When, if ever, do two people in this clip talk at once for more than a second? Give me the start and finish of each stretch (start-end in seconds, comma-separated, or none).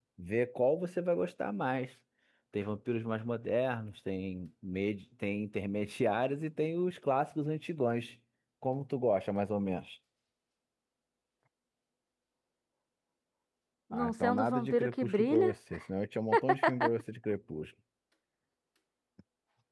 13.9-15.5